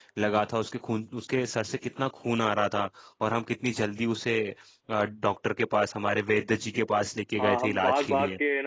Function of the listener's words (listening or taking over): taking over